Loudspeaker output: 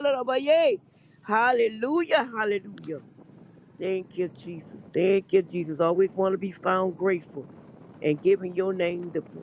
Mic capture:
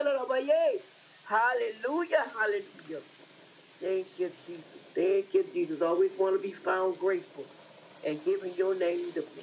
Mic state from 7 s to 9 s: echo only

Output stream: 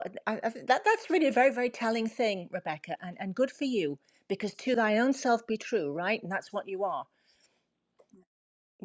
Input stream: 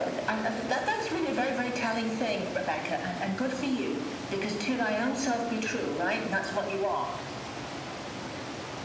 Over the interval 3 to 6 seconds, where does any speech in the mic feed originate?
echo only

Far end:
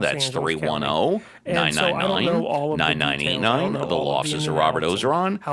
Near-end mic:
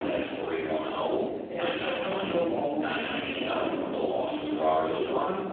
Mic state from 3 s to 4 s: echo only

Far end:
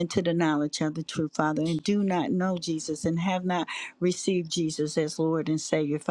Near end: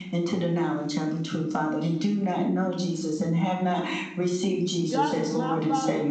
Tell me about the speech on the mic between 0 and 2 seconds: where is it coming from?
echo only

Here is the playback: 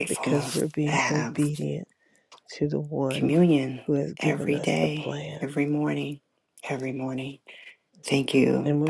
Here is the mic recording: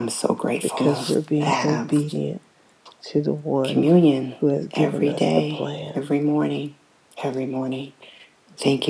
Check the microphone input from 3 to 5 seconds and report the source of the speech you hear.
echo only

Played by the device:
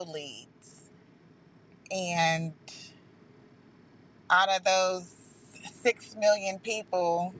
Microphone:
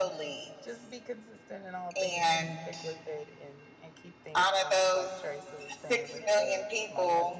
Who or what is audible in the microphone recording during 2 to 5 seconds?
both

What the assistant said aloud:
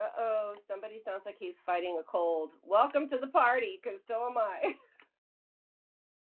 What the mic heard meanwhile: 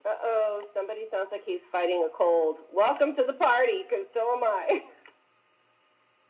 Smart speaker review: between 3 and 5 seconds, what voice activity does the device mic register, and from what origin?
echo only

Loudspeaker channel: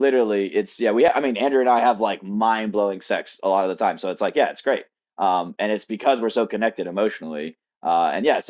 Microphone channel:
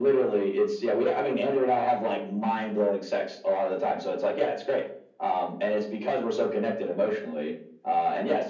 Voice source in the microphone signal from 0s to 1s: echo only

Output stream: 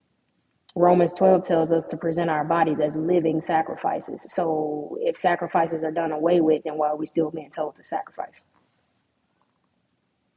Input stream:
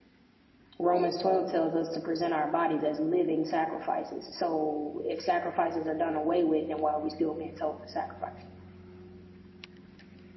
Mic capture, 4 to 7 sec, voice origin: echo only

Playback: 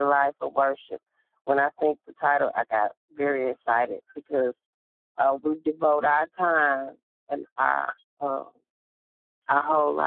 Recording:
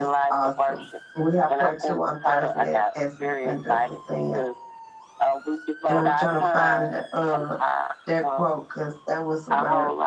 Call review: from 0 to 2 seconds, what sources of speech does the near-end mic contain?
both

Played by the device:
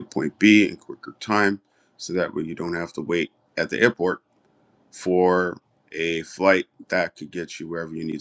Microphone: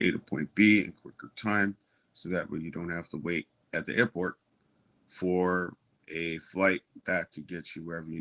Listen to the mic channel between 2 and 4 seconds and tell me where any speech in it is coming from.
echo only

